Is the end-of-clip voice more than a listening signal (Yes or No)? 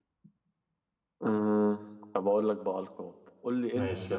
No